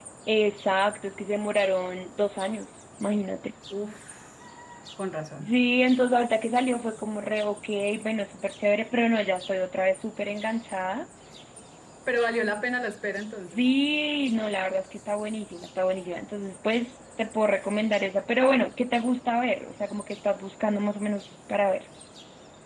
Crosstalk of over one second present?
No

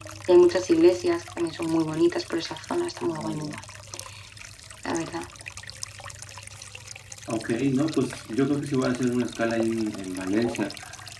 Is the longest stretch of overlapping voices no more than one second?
Yes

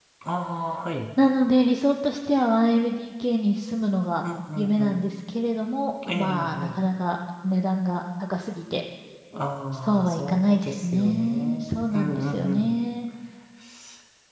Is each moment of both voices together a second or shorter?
No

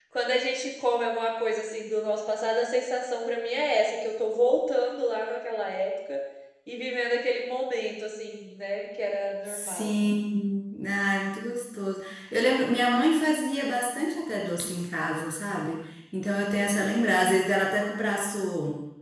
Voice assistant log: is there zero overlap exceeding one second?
Yes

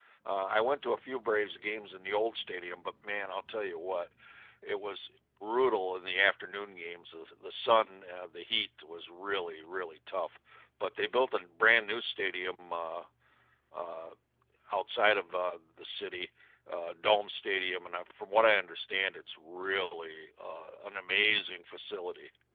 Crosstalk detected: No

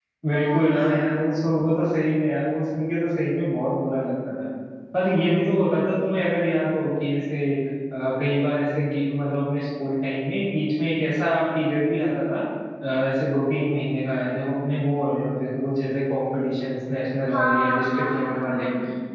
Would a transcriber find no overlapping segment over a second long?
No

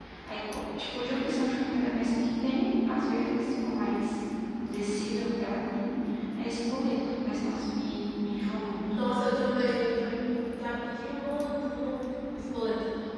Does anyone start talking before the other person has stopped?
No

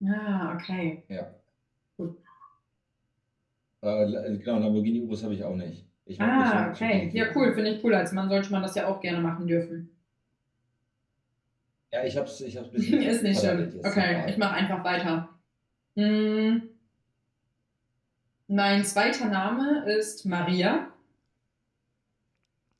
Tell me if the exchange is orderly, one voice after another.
No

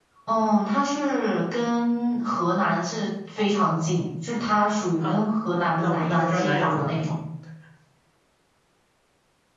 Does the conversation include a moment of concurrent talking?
Yes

